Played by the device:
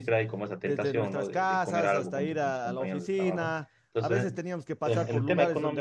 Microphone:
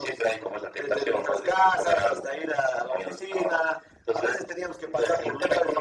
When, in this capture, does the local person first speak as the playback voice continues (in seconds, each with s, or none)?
none